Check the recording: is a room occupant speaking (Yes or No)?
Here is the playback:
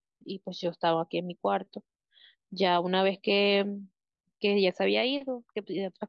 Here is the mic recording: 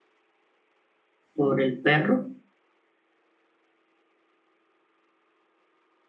Yes